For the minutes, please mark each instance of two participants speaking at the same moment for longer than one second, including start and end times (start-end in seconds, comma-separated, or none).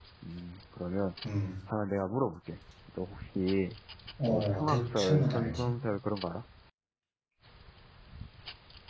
4.3-5.7